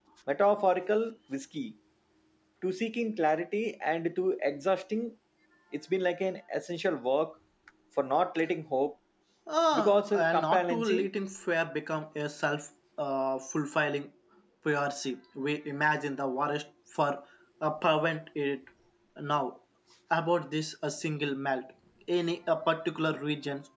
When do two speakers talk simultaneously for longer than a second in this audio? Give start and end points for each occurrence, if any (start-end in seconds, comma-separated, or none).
9.7-11.1